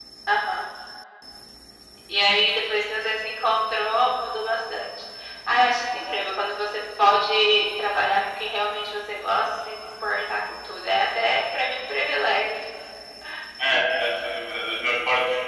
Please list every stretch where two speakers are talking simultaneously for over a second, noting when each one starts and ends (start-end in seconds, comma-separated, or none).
none